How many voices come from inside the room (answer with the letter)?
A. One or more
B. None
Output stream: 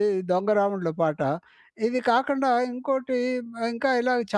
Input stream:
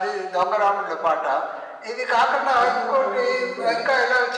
A